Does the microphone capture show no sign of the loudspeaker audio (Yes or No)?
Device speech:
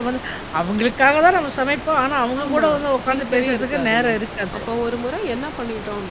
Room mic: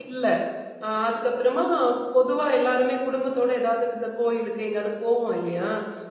Yes